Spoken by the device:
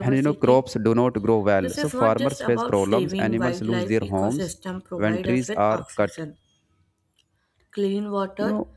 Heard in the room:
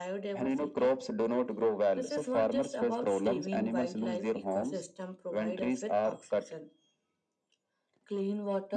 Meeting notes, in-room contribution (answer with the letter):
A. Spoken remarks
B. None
B